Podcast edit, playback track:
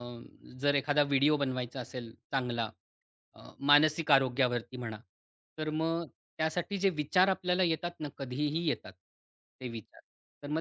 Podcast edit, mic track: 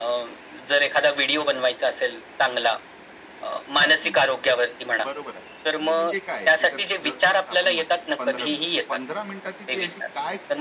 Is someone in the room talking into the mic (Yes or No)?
Yes